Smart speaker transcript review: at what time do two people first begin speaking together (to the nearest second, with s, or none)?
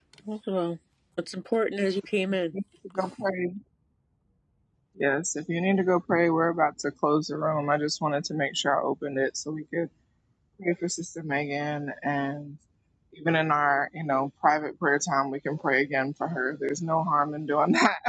none